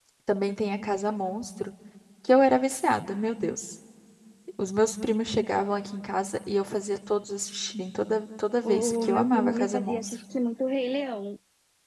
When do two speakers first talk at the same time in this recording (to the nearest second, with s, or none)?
9 s